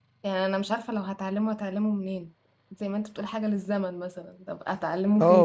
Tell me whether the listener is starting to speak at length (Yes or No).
Yes